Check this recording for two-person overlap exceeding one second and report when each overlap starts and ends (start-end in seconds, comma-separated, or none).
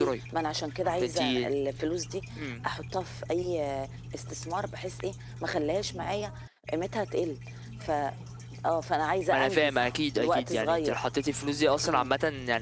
9.3-11.0